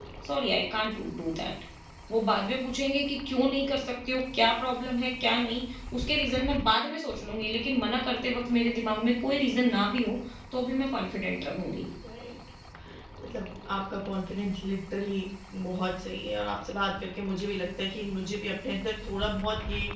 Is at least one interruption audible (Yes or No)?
No